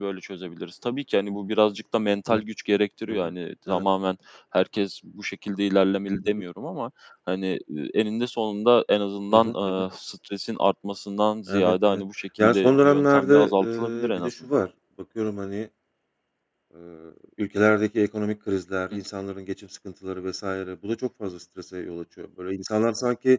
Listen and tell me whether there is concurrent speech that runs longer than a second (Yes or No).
Yes